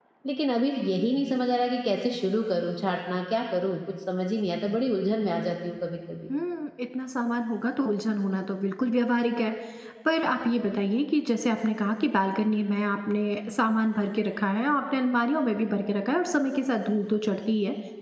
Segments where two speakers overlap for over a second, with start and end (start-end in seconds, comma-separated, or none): none